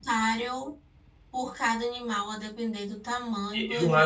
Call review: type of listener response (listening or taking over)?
taking over